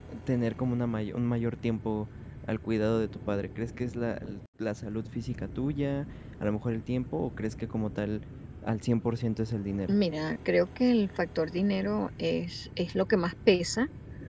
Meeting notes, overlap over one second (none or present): none